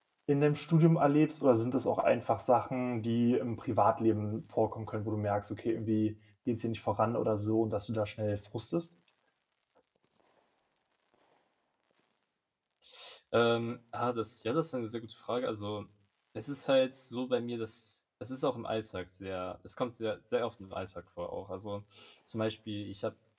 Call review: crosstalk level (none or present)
none